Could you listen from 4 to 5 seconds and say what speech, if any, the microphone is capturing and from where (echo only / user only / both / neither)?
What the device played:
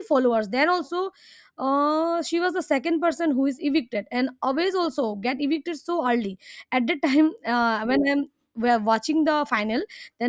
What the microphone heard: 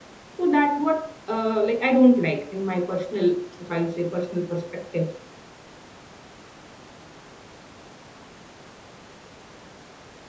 user only